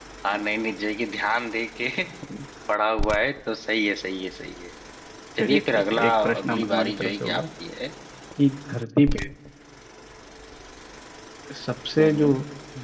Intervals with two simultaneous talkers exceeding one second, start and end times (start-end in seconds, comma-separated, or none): 5.4-7.4